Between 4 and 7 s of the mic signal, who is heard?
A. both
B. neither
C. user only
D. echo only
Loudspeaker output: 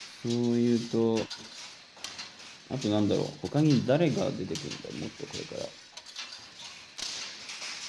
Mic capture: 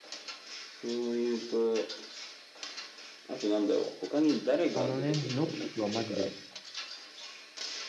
A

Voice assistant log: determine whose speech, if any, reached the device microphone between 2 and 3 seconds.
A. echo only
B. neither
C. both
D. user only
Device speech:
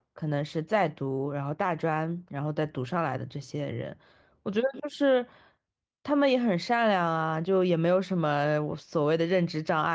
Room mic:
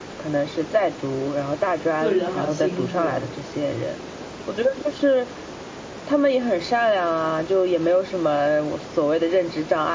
C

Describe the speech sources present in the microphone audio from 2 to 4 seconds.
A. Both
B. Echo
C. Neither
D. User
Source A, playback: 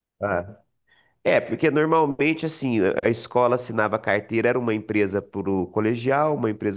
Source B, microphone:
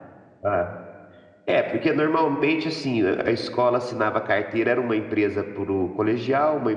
B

